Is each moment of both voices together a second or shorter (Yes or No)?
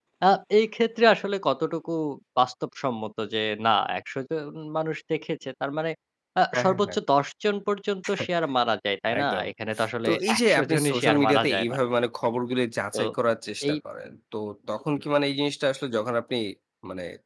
No